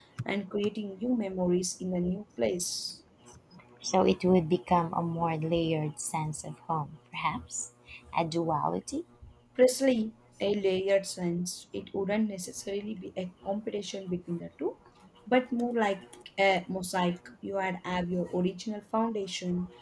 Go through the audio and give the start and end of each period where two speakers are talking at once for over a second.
none

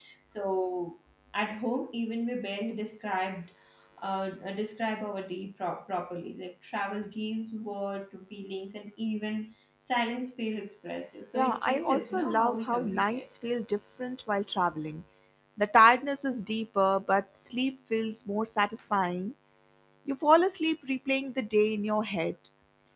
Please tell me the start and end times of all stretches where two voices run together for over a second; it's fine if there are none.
11.3-13.2

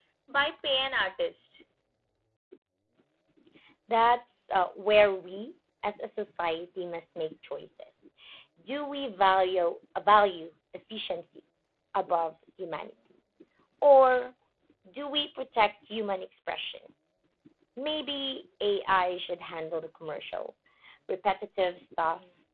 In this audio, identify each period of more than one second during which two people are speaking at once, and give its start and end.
none

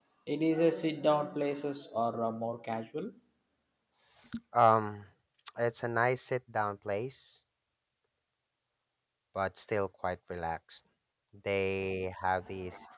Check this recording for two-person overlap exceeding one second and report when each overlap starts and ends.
none

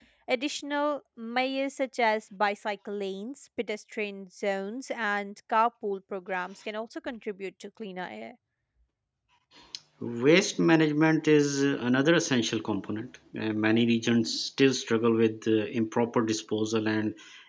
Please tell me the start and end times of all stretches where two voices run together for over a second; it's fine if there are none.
none

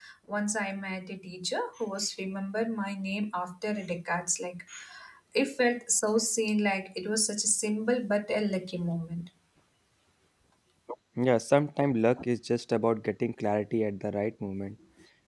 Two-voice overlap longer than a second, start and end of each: none

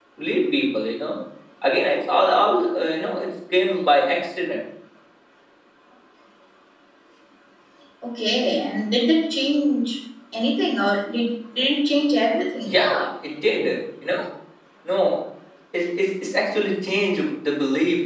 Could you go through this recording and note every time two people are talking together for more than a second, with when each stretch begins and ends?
none

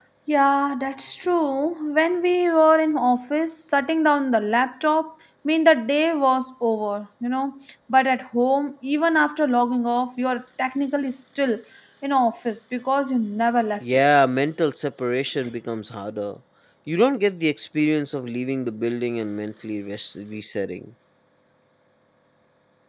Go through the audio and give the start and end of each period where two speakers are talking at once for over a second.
none

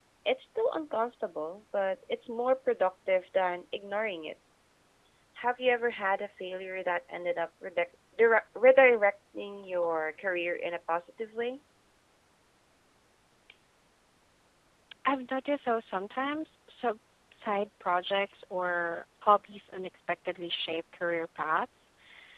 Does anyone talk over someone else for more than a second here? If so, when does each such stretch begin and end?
none

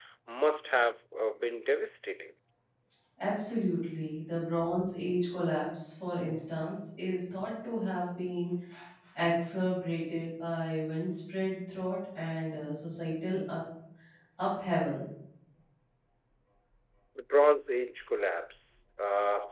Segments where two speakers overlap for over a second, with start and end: none

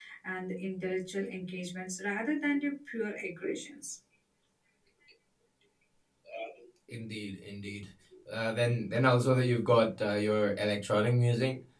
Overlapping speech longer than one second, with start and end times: none

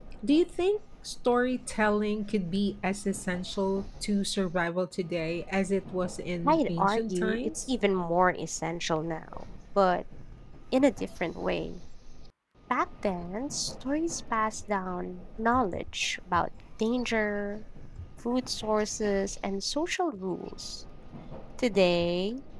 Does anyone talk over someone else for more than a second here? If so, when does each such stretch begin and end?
6.4-7.7

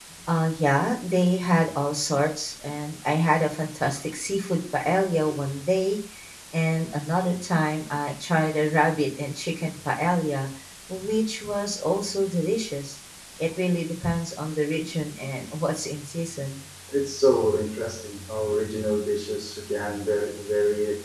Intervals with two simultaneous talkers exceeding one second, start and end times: none

